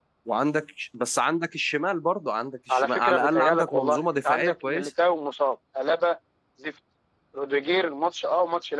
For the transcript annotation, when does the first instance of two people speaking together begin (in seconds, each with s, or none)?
2.7 s